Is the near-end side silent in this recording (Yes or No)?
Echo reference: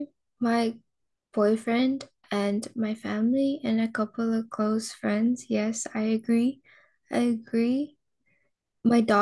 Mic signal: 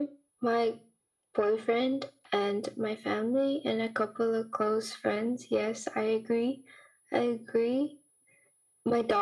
Yes